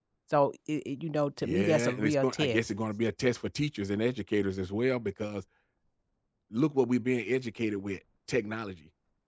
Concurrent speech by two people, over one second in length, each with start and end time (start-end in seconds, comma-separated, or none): 1.4-2.7